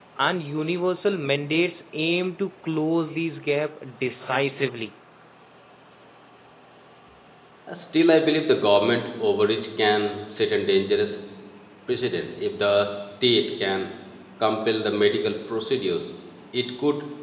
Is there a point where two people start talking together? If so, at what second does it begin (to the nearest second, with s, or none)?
none